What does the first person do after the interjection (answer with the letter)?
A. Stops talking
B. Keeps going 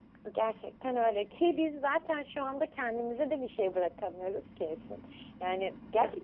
B